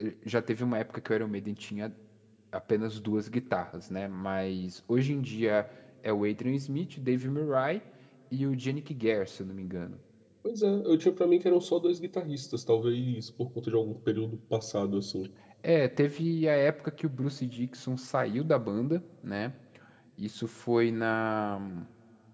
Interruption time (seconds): none

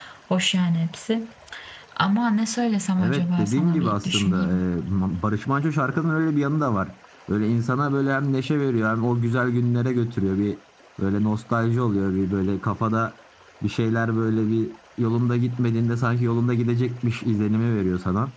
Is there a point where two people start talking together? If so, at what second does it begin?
3.0 s

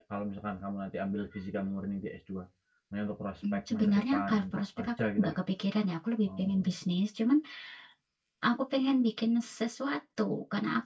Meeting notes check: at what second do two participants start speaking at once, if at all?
3.5 s

